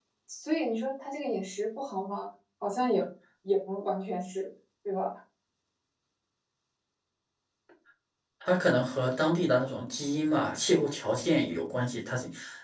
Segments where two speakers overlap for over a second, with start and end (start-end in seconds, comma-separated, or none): none